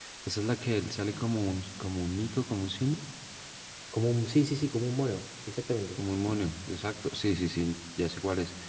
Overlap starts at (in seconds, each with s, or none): none